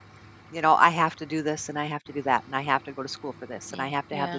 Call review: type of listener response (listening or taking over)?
listening